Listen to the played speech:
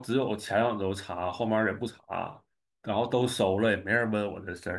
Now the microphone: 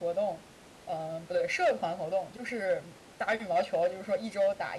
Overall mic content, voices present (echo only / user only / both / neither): user only